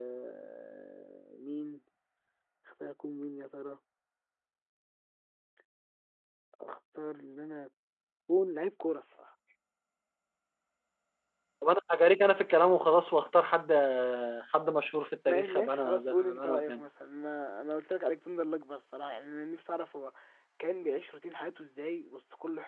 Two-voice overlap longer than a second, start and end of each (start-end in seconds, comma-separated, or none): 15.3-16.8